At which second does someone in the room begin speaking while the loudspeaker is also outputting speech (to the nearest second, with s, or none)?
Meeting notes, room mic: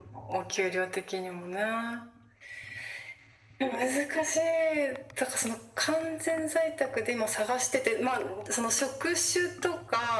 none